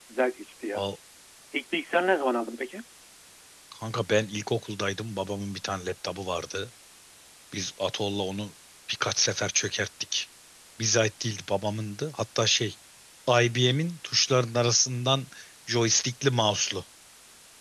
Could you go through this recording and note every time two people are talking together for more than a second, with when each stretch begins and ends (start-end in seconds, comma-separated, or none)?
none